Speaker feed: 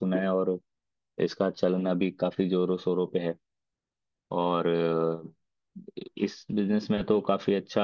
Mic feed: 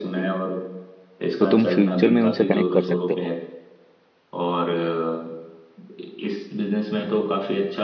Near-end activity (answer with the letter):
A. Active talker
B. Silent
A